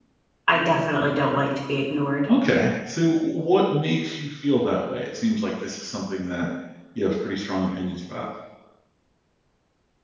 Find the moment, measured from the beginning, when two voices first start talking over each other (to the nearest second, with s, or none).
none